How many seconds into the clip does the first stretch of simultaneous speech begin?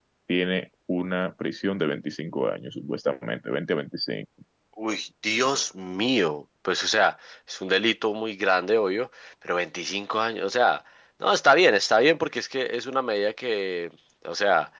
none

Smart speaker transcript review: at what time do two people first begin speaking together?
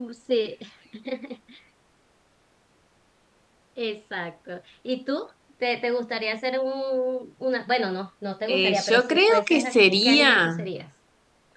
8.5 s

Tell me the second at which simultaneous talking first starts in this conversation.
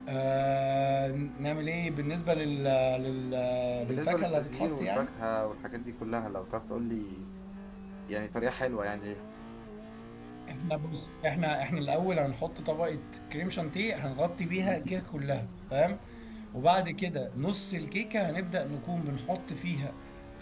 3.9 s

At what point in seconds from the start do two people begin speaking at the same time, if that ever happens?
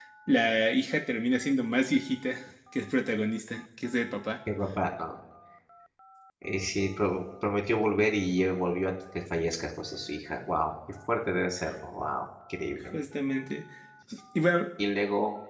none

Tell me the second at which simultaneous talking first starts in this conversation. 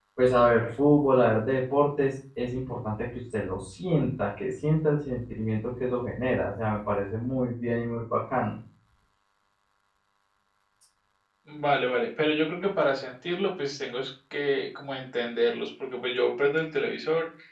none

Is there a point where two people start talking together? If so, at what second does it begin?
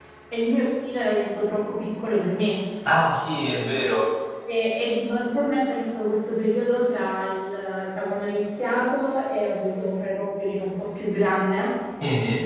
none

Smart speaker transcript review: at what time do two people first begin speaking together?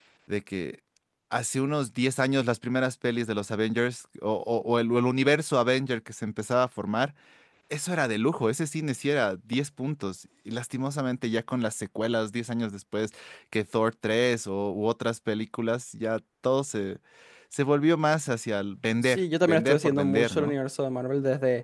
19.0 s

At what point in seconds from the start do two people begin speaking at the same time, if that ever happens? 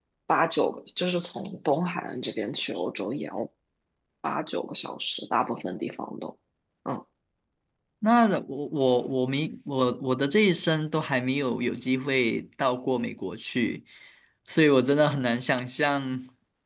none

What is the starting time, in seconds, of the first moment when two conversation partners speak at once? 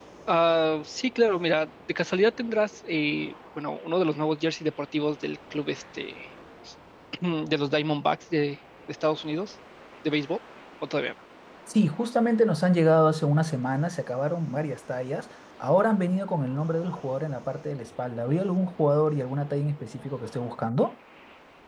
none

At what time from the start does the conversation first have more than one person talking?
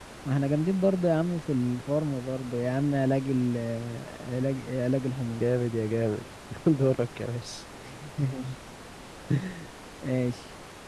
none

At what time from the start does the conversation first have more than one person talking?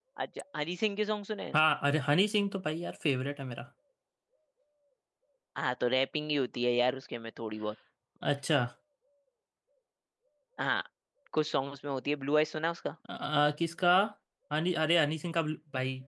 none

